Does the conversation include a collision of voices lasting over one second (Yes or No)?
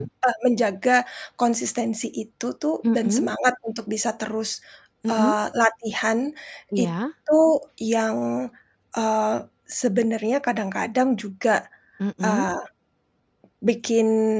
No